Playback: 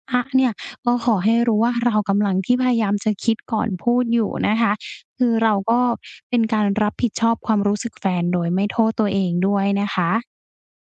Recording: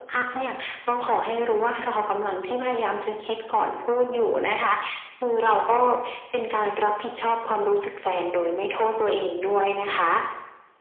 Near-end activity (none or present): none